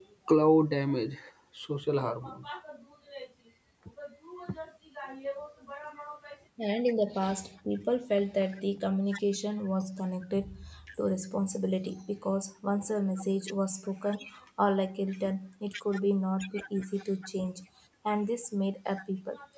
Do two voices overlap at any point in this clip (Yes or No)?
No